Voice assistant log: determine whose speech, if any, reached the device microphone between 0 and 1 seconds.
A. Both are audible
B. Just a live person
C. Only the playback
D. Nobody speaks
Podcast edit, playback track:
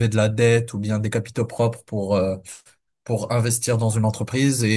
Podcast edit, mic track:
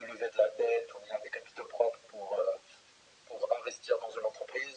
C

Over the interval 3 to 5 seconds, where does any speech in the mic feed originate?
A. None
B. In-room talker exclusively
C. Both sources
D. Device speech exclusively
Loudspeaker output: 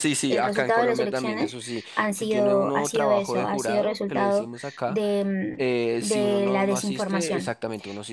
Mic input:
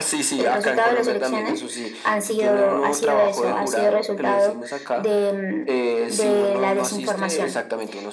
D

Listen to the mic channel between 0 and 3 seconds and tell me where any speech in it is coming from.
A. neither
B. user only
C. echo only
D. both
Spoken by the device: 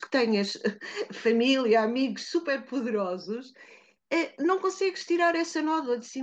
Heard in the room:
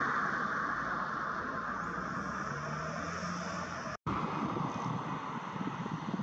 A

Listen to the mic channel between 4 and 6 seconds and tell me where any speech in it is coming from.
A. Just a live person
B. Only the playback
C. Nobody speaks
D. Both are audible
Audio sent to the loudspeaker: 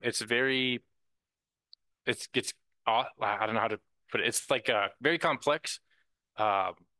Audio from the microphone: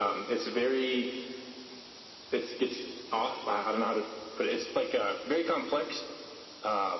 B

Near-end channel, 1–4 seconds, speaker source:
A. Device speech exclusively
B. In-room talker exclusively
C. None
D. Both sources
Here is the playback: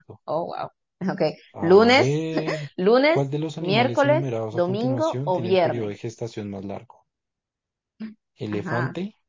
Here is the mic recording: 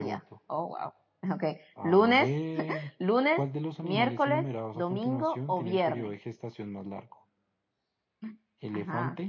A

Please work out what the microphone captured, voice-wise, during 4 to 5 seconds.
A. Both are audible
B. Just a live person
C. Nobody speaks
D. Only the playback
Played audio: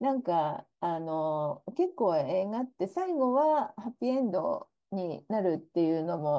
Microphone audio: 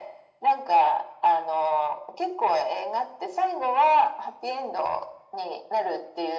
D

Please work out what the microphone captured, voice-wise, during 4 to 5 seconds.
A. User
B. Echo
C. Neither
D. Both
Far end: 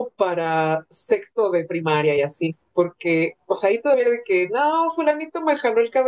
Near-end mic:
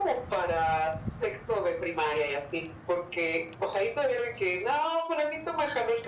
B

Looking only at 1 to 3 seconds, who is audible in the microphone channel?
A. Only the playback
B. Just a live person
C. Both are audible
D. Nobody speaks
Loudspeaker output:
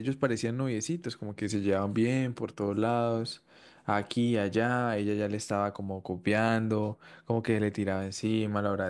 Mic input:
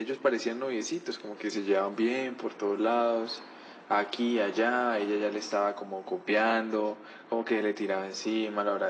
A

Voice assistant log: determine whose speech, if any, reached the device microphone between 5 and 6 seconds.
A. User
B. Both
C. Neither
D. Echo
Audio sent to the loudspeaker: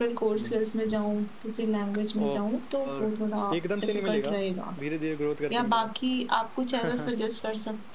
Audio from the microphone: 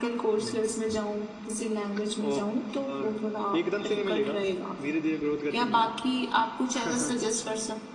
D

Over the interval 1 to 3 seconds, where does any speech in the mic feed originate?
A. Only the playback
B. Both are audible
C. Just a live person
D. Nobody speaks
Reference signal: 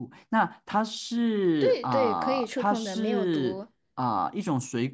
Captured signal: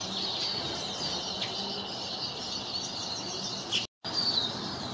D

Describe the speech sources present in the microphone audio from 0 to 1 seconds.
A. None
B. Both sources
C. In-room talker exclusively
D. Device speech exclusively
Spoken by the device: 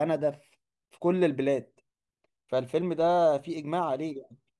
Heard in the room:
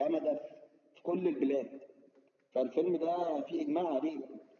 D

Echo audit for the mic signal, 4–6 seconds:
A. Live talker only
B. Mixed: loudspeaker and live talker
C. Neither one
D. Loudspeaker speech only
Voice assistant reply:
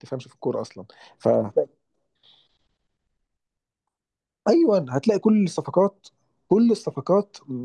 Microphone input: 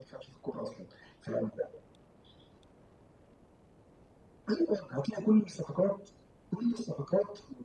D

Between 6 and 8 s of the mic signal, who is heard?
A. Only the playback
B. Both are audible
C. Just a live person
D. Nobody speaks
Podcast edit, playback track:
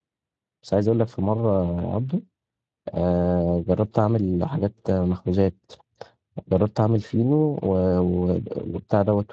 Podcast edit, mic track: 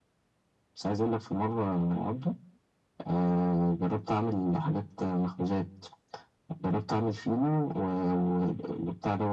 A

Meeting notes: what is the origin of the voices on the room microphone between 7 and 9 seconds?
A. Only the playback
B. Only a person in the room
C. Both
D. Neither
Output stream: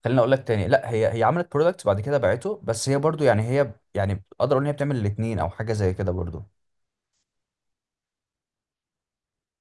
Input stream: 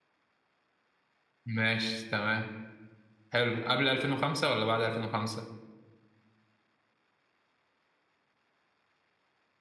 D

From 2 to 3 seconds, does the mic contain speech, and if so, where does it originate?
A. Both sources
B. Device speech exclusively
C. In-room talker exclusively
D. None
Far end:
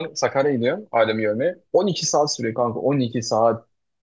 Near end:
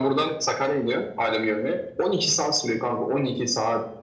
B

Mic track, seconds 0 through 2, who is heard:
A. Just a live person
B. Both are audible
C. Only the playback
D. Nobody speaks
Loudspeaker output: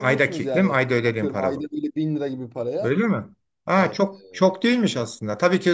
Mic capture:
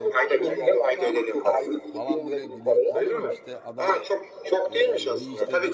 B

